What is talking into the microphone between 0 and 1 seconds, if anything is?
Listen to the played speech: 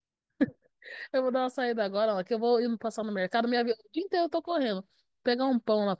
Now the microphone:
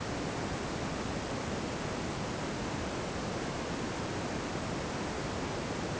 neither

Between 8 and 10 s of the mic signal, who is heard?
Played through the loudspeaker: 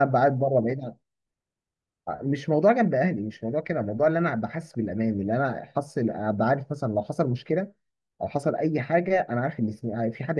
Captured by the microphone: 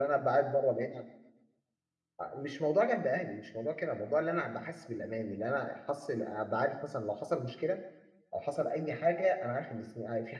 echo only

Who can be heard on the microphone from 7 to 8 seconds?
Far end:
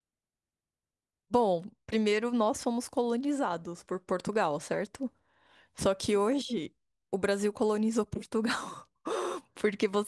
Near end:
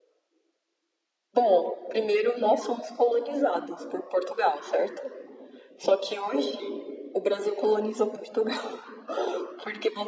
echo only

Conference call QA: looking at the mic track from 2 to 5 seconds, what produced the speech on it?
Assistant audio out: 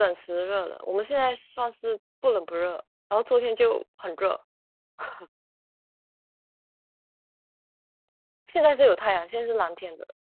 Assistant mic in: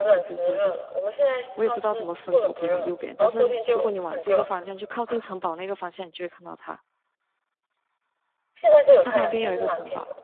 both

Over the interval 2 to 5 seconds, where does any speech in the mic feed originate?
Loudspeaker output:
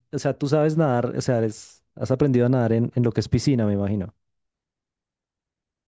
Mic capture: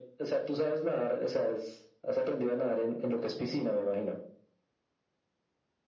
echo only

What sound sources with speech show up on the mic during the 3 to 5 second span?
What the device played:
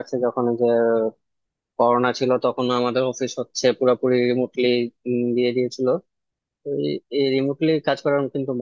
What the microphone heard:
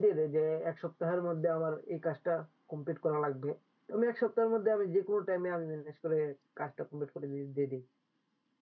user only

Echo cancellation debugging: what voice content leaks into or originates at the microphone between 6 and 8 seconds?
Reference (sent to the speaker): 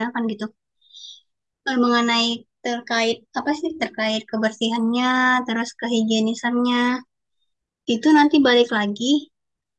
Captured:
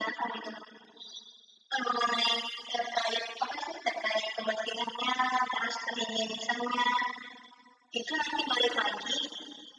echo only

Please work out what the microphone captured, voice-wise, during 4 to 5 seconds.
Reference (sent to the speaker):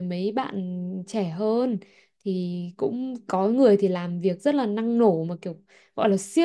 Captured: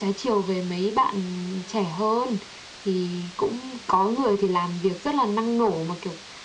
echo only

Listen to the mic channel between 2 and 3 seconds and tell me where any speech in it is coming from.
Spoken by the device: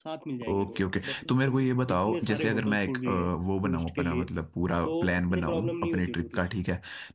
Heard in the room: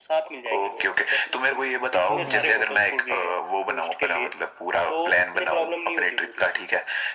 both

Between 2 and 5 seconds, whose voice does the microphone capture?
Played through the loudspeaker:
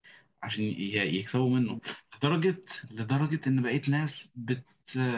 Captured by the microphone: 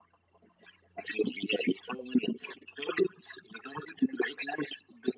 echo only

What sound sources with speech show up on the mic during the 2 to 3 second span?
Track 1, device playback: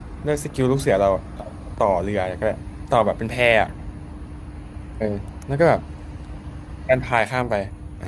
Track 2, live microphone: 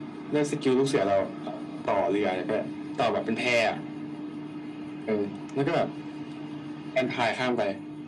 echo only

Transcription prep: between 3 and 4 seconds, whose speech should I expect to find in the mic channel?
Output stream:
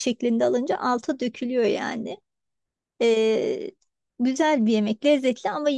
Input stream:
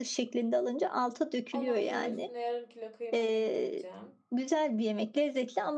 both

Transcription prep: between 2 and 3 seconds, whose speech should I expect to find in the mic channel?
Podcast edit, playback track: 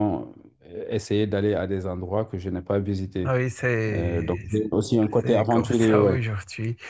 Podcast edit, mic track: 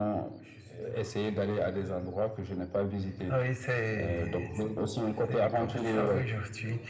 both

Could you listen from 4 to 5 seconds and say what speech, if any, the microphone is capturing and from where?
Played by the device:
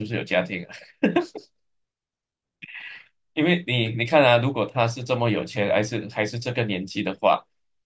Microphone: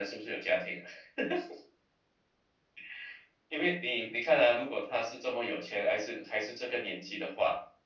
echo only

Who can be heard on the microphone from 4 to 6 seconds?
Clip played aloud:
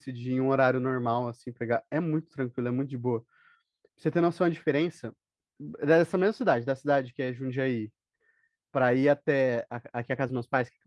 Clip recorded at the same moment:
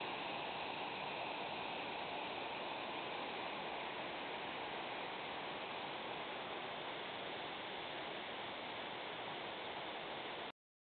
neither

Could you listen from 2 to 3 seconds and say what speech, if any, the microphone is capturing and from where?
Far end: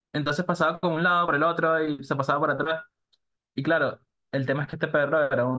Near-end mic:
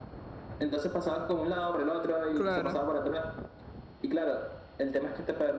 both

